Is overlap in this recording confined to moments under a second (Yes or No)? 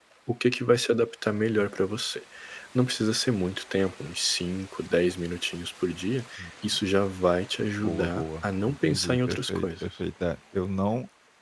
No